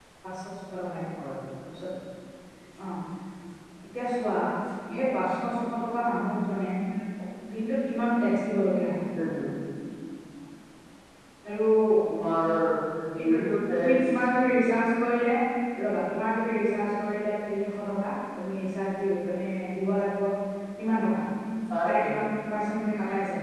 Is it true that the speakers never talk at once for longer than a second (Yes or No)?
Yes